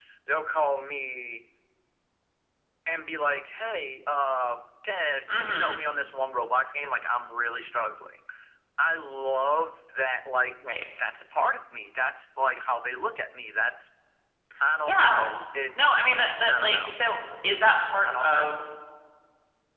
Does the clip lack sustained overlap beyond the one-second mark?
Yes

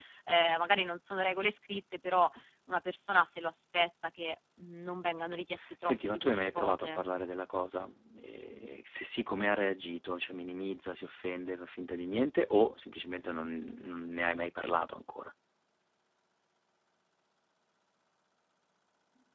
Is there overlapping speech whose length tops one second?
Yes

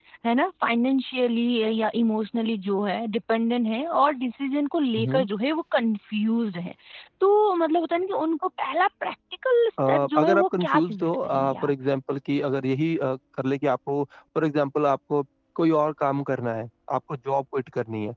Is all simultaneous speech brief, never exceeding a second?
No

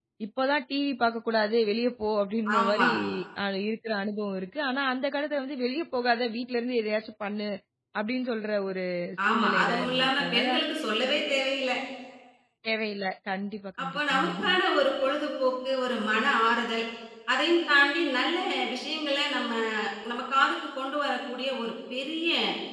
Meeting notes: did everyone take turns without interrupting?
No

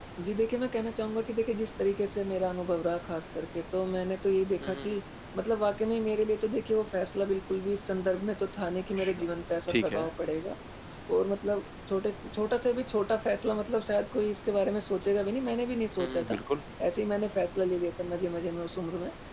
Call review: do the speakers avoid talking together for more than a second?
Yes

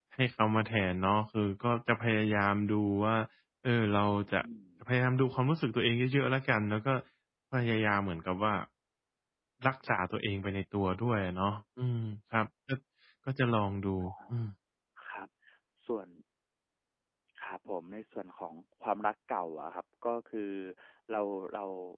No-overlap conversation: Yes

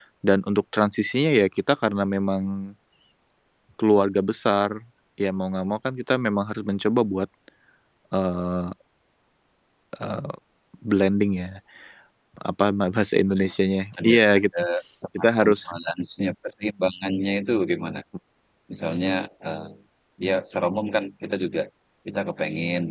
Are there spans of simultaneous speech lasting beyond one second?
No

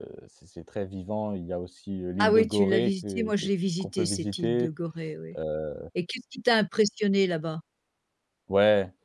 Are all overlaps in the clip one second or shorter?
No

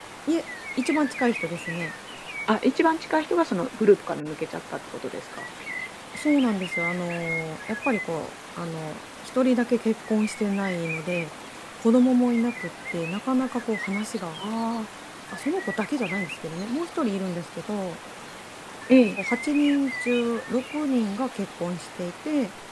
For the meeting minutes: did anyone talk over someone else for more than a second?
No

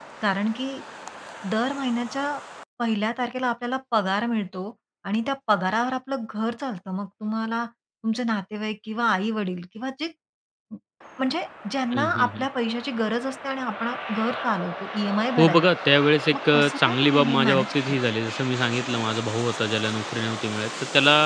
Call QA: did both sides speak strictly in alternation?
No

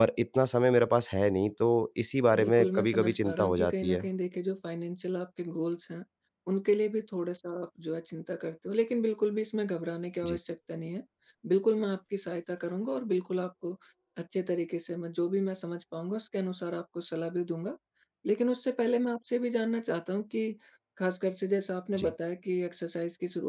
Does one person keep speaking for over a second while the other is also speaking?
Yes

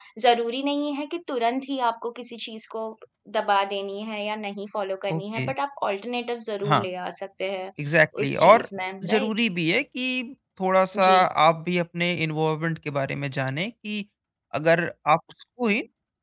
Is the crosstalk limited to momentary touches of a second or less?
Yes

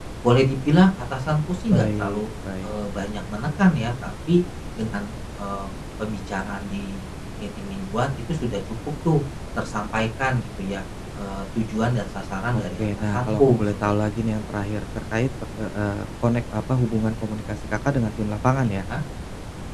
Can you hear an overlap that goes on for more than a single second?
Yes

